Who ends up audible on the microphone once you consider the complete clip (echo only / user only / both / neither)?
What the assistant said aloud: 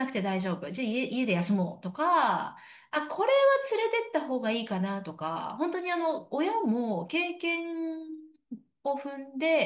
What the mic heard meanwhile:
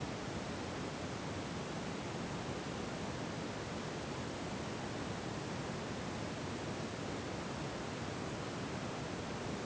neither